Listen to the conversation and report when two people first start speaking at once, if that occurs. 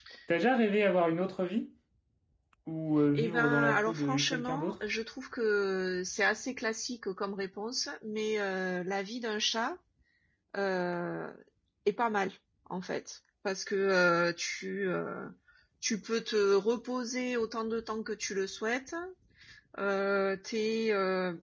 3.1 s

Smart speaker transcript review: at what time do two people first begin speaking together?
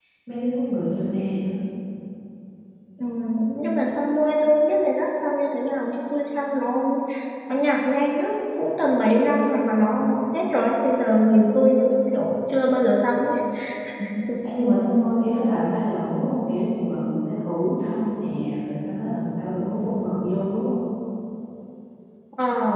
none

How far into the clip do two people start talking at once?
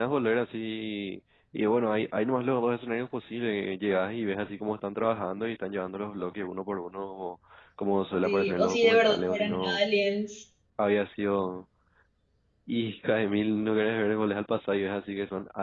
8.2 s

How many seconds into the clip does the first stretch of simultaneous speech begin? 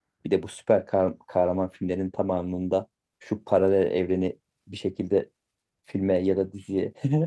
none

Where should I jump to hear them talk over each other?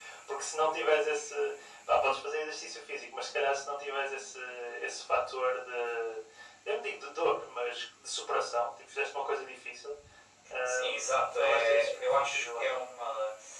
10.9 s

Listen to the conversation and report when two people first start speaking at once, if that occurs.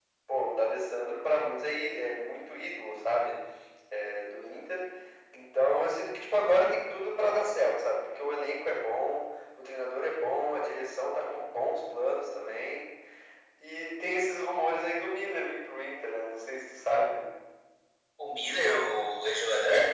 none

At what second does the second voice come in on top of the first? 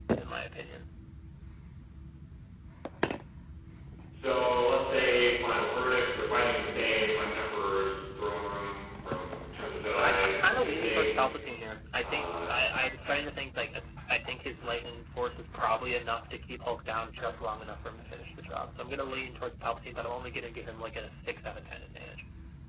10.0 s

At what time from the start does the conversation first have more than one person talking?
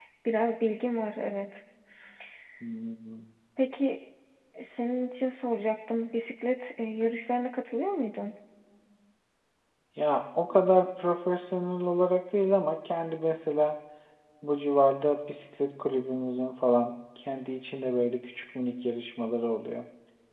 none

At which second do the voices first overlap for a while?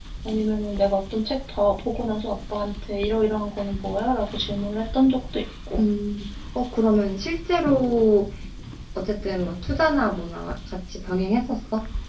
none

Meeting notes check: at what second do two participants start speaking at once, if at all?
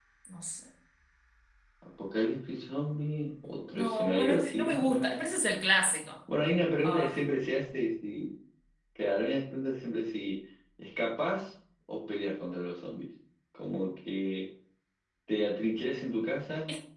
3.7 s

